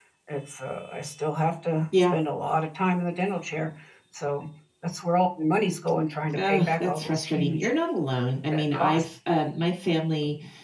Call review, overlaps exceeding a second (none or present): present